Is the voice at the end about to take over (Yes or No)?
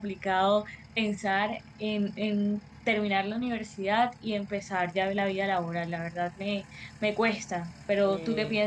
Yes